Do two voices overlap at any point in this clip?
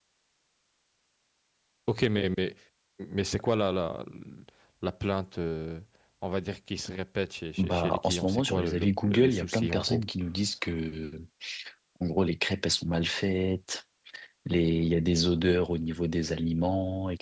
Yes, from 7.6 s

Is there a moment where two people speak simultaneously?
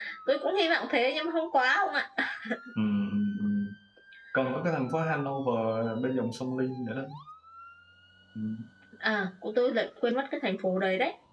No

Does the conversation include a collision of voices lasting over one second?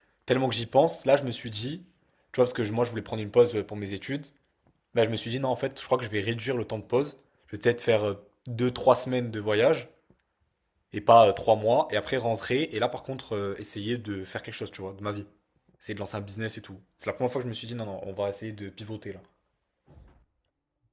No

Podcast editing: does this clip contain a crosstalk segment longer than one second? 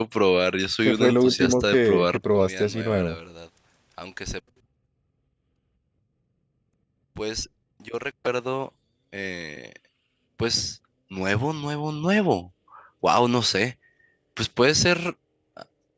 Yes, from 0.8 s

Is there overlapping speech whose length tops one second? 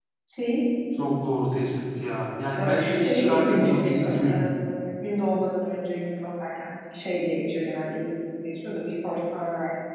Yes, from 2.5 s

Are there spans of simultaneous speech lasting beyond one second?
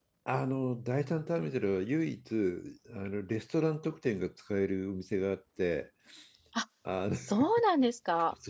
No

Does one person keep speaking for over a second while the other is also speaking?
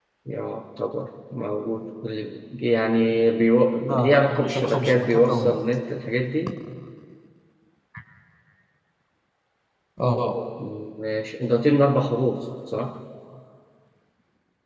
Yes, from 3.8 s

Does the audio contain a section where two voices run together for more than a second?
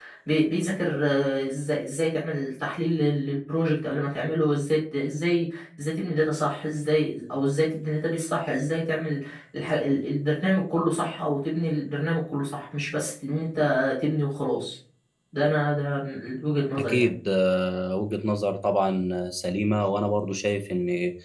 No

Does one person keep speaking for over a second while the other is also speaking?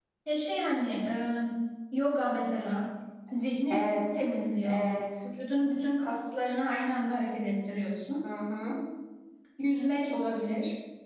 No

